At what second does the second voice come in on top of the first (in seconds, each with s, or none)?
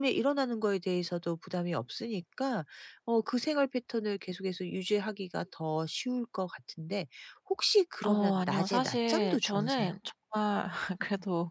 8.0 s